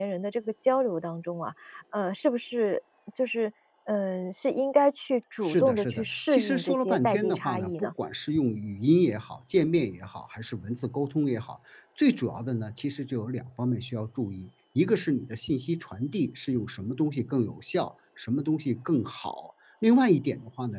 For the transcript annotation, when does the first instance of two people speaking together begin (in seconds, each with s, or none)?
5.4 s